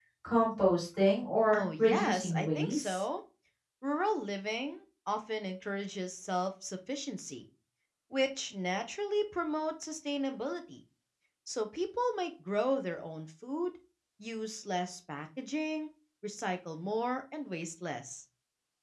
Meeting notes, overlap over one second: present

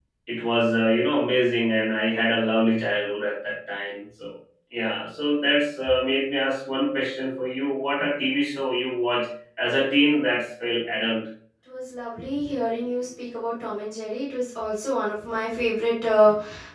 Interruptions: none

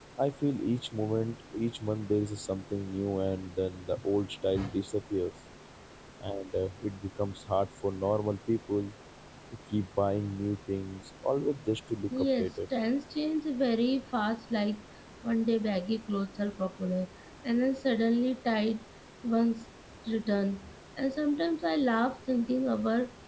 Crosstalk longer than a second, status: none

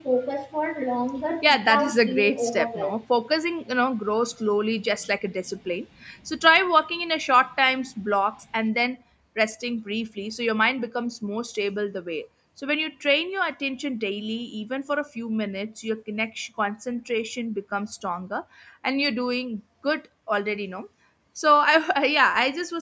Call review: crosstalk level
present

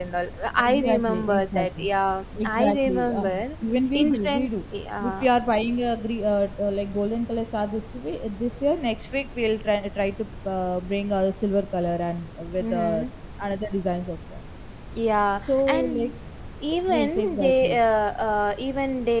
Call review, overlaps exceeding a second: present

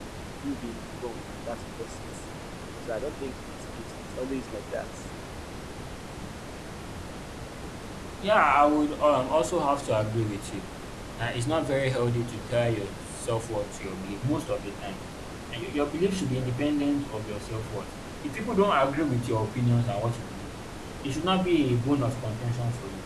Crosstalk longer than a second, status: none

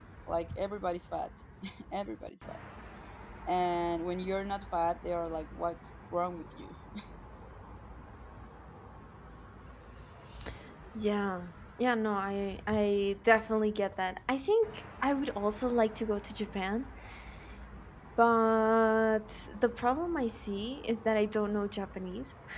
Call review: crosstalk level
none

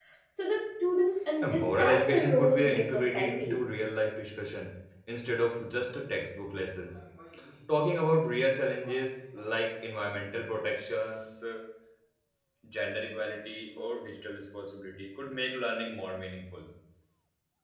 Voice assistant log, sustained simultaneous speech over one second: present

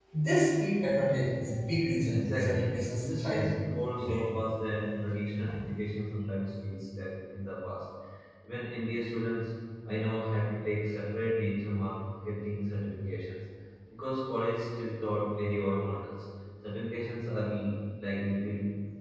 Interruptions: present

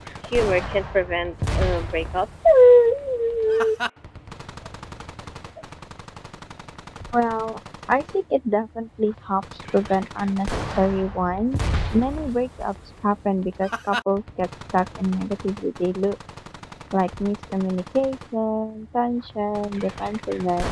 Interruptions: none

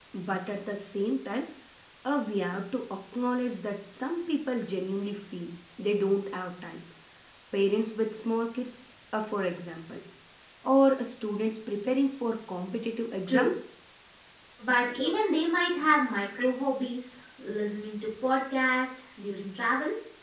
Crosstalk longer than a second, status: none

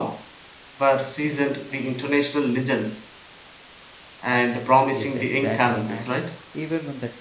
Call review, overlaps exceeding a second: present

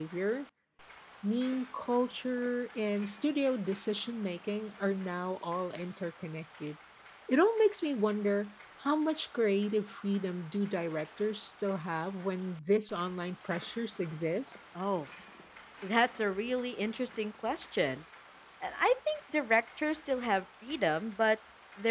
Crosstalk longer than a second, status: none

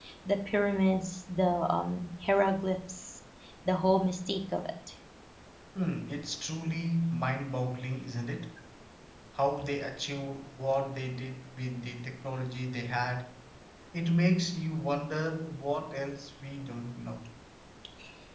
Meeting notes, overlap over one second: none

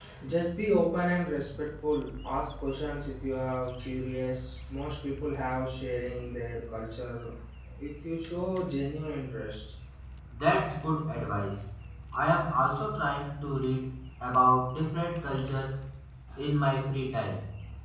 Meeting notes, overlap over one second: none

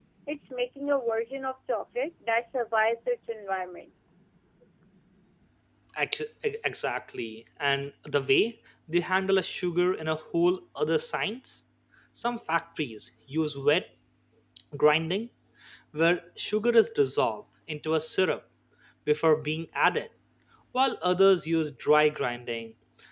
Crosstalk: none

